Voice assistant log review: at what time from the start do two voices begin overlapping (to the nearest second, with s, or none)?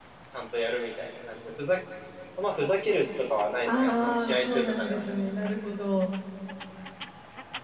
4 s